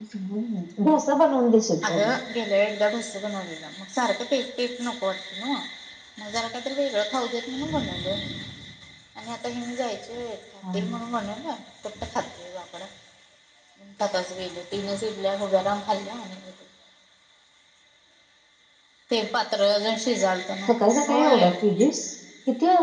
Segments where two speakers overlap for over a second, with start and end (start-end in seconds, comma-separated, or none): 20.7-21.9